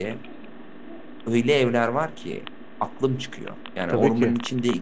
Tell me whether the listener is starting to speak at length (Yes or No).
No